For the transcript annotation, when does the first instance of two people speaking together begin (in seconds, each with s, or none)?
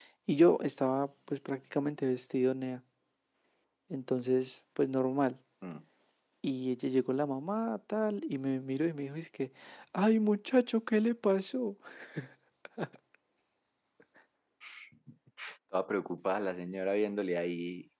none